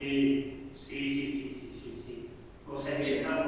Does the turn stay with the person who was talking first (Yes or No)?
Yes